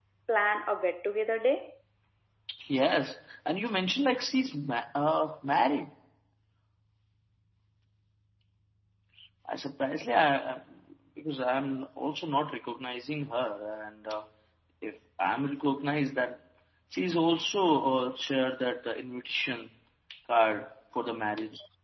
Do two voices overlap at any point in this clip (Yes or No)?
No